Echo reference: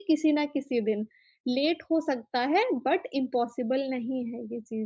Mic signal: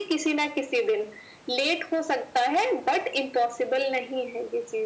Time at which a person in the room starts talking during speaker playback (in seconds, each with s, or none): none